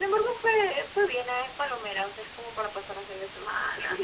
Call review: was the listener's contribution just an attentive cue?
No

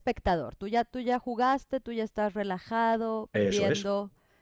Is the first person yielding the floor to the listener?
No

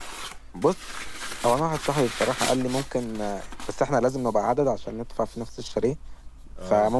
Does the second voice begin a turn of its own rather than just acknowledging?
No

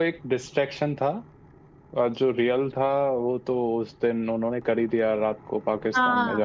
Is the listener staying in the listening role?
No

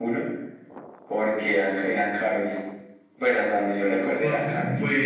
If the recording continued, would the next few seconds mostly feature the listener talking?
Yes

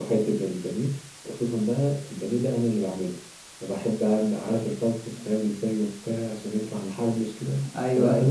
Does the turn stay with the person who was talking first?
Yes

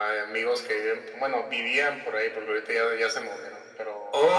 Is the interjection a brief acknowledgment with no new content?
No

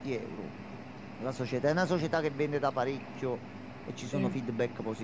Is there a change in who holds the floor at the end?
No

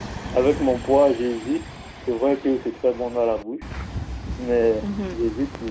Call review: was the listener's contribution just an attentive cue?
Yes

